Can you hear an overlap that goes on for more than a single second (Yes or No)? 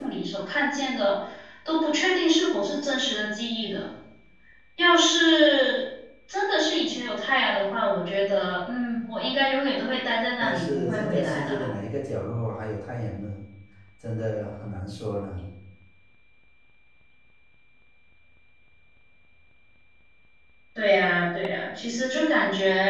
Yes